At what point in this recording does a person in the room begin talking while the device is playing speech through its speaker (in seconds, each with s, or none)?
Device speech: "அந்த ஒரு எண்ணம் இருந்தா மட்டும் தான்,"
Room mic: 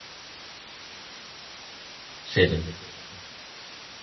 2.3 s